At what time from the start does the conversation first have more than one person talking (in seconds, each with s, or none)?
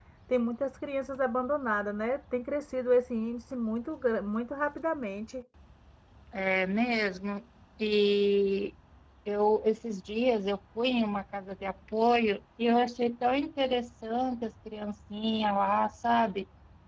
none